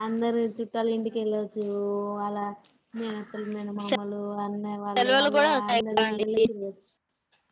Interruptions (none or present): present